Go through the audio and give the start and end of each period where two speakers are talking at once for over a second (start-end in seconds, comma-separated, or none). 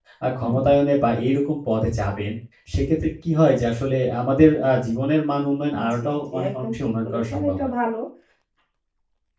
5.9-7.7